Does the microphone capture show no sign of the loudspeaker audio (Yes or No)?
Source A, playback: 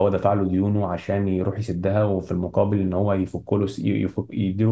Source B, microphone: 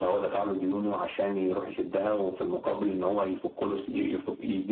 No